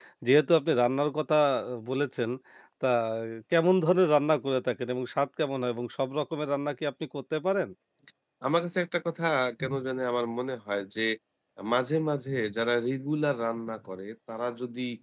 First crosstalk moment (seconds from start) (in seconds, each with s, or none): none